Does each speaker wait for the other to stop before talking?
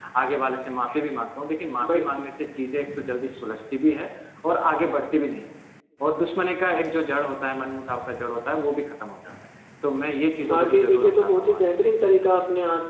No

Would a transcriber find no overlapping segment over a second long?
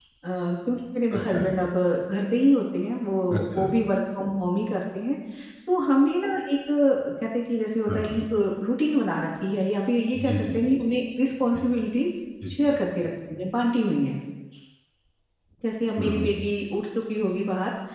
Yes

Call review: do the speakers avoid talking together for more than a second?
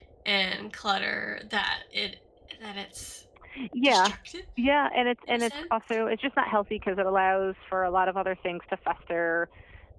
Yes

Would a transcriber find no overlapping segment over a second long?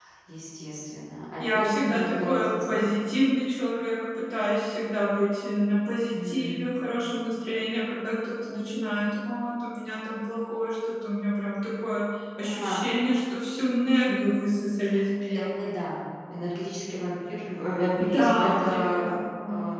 No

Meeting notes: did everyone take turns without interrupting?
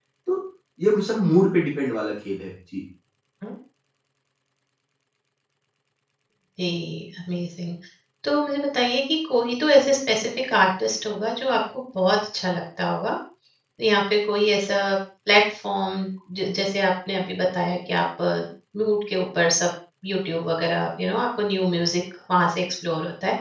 Yes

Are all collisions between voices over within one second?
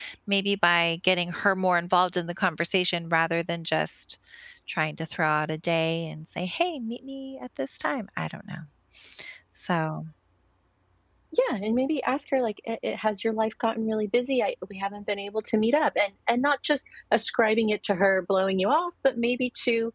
Yes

